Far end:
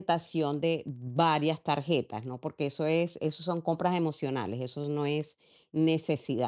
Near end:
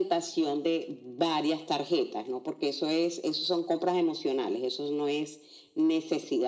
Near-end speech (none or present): none